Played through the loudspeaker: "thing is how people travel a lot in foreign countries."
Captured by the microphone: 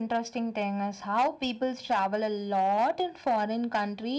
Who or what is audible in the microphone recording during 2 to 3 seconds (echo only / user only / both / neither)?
echo only